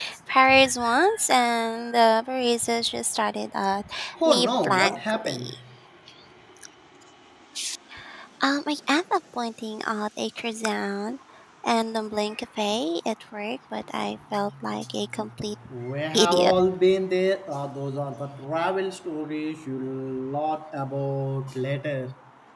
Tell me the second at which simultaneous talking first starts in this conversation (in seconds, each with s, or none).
4.2 s